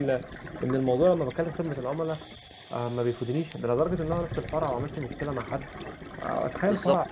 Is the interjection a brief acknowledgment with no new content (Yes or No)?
No